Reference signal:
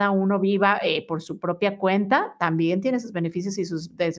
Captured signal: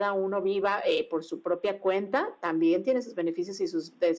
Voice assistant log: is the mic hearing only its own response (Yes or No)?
Yes